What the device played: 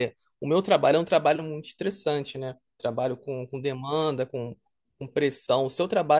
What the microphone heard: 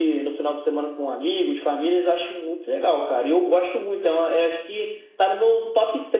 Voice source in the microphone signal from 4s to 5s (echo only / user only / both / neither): user only